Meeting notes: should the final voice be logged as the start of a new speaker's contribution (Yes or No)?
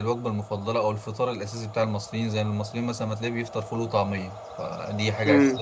No